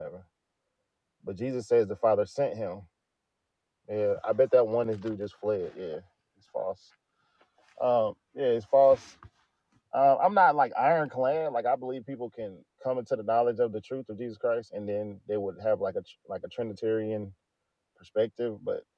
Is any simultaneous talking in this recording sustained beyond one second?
No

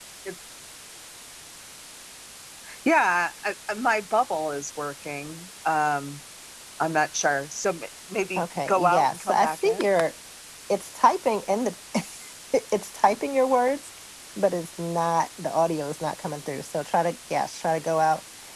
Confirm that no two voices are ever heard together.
No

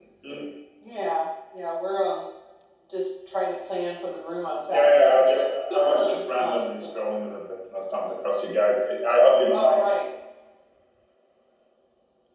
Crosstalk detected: Yes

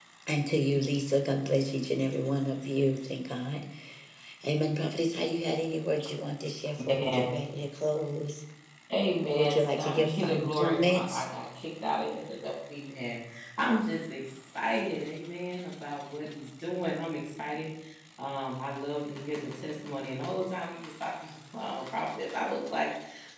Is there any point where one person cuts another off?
Yes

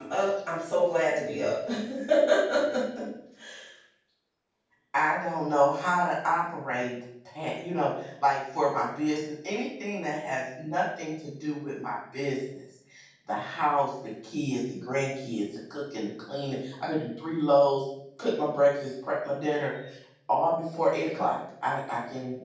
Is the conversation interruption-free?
Yes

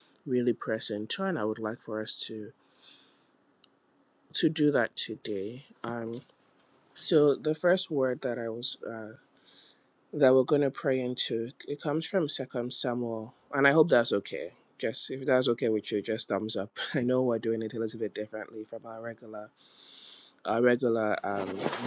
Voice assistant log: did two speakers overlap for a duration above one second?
No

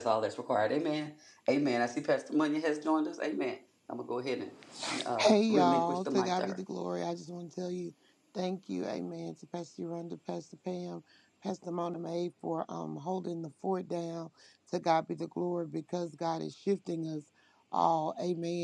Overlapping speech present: Yes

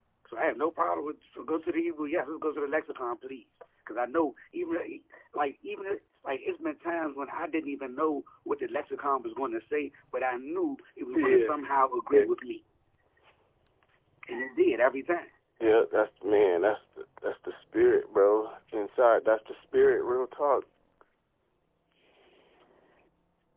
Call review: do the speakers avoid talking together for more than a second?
Yes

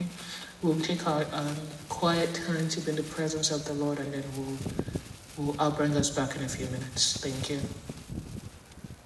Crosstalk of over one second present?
No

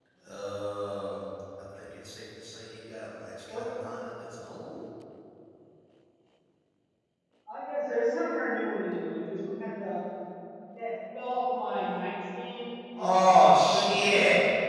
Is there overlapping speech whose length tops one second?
Yes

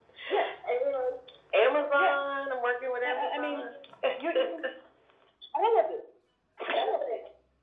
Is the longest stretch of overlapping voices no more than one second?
Yes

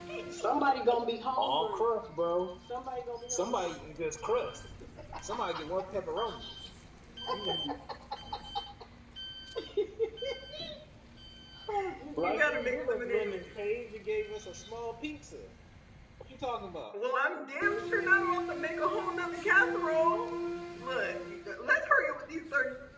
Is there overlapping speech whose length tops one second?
Yes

